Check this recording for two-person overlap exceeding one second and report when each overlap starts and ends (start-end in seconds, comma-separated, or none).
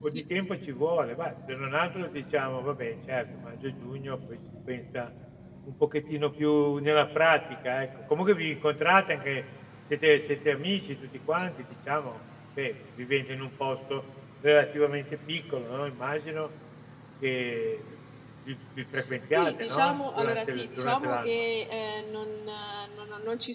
19.3-21.3